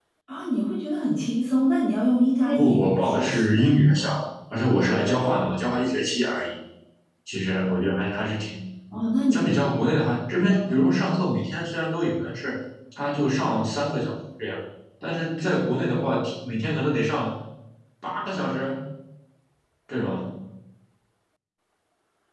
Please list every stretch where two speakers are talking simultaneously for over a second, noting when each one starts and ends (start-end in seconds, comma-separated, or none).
2.5-3.8